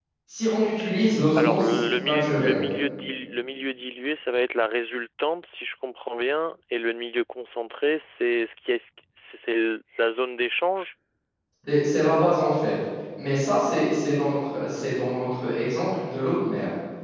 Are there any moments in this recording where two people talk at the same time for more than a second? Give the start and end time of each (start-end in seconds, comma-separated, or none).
1.4-2.6